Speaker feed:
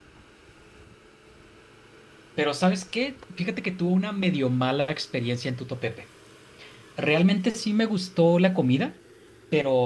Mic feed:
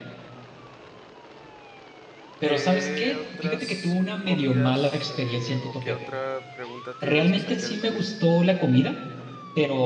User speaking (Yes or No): Yes